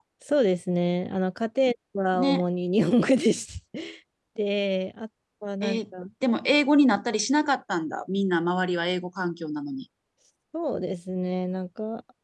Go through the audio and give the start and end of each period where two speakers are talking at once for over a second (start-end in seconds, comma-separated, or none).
none